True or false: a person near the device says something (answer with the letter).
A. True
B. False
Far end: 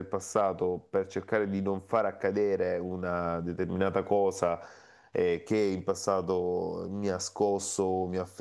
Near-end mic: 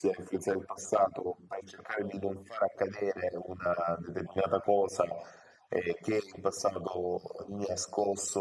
B